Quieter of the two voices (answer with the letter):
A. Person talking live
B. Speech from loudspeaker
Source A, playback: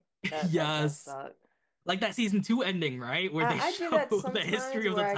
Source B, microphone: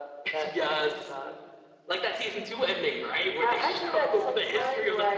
A